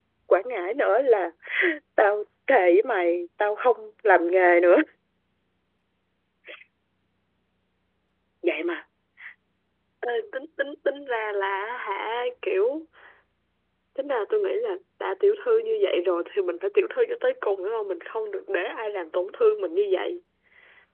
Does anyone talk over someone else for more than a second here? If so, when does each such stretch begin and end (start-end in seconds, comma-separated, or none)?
none